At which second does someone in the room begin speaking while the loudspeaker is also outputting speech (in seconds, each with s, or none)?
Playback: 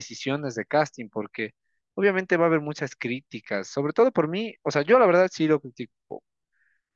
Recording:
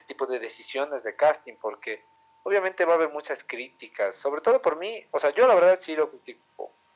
none